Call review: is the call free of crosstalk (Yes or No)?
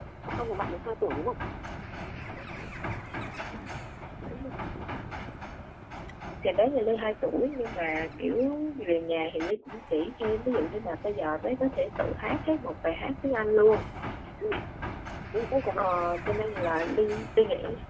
Yes